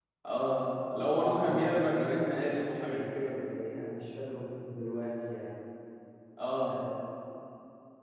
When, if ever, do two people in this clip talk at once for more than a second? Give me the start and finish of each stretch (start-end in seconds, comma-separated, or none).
1.1-3.3